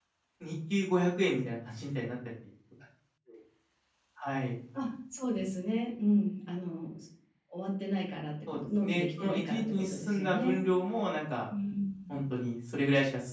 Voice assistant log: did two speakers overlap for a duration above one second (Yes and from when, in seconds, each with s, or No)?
Yes, from 8.5 s